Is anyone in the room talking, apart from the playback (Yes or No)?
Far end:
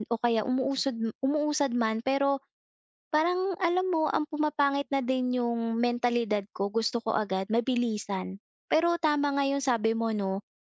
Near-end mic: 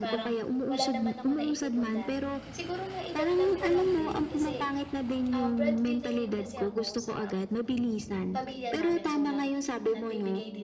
Yes